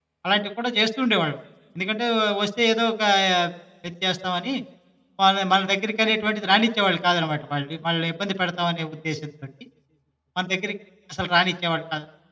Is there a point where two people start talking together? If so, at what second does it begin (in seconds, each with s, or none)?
none